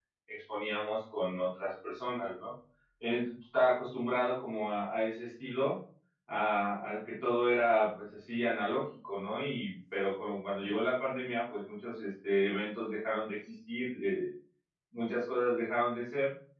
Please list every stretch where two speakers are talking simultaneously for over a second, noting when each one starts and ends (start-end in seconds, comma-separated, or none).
none